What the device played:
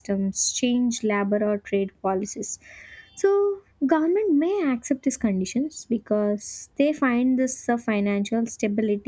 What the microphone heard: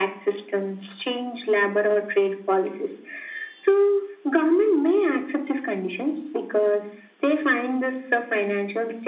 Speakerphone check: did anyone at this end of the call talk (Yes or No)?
No